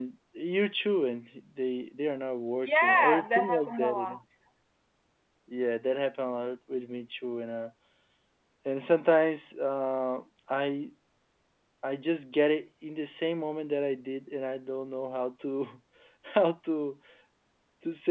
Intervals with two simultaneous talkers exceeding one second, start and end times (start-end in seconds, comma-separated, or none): 2.6-4.2